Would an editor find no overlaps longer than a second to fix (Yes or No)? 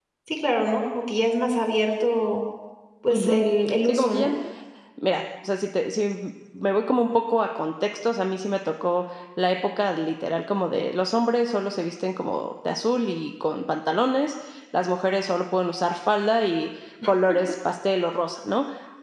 Yes